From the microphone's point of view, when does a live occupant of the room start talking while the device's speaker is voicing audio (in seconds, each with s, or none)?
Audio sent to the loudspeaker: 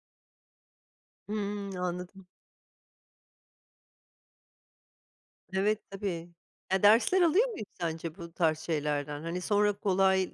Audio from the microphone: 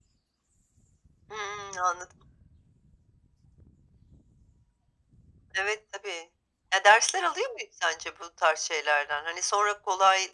none